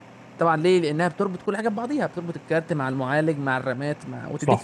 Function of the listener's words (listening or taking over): taking over